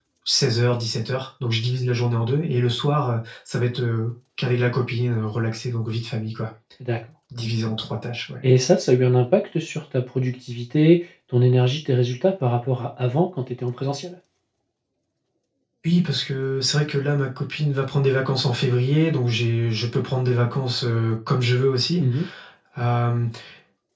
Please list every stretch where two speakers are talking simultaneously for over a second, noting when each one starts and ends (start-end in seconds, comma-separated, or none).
none